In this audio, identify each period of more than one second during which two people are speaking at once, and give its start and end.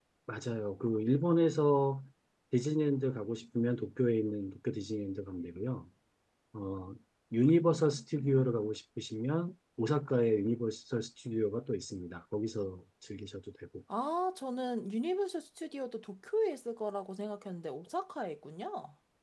none

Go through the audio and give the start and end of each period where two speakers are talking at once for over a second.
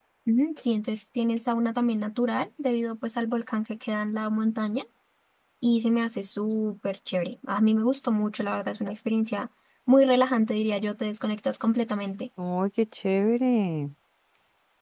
none

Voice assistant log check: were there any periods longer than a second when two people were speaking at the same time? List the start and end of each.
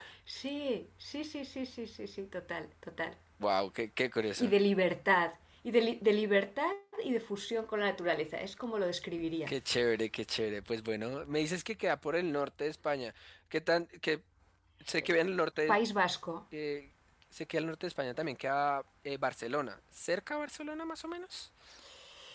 none

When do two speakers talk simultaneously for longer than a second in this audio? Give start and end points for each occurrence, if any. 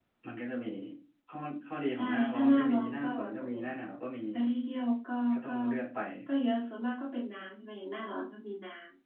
2.0-3.6

